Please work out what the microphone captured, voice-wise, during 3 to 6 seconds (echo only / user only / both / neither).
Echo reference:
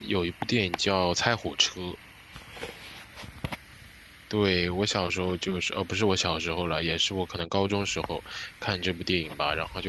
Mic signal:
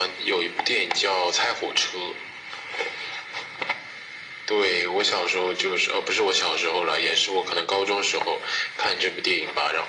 echo only